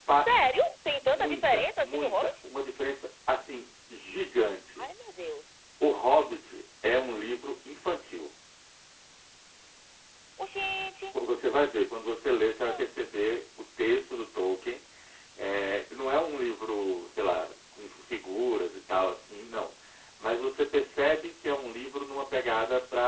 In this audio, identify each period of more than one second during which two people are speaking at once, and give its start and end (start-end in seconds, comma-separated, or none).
1.0-2.3